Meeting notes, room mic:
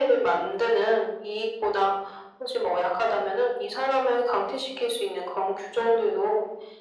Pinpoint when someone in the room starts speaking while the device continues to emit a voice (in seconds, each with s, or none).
none